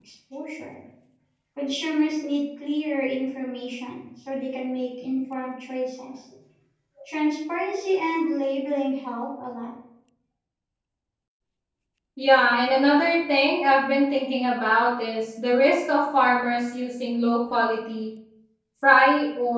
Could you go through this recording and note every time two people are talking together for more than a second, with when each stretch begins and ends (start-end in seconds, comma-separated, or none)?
none